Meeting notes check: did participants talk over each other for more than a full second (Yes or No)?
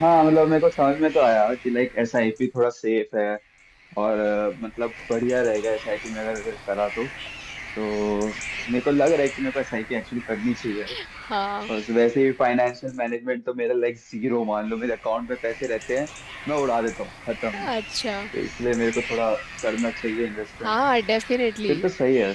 No